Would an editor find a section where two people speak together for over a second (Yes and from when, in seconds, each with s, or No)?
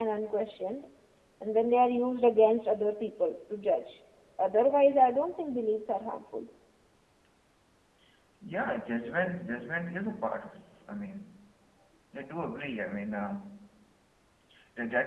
No